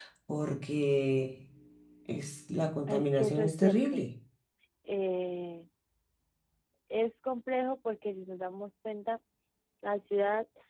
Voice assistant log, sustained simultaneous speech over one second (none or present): present